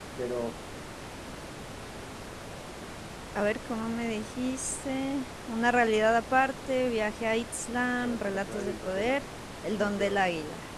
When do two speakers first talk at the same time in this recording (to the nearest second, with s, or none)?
8 s